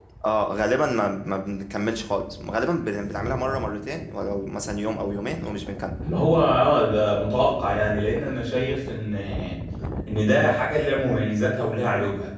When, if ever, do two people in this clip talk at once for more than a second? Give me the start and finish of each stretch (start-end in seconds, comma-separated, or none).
none